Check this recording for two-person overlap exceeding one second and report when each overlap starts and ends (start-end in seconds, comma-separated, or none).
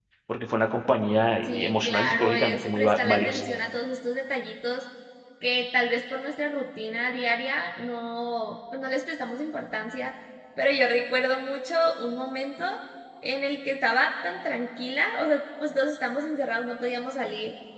1.5-3.4